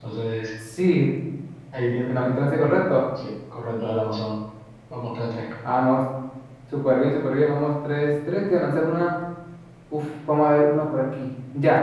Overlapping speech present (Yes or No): No